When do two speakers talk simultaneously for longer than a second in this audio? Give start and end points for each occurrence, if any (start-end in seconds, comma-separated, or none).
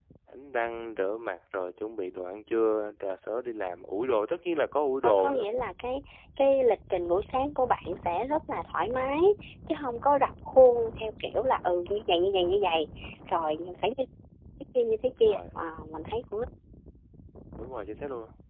none